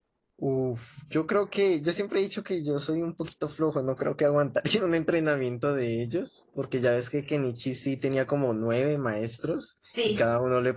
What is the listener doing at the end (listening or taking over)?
listening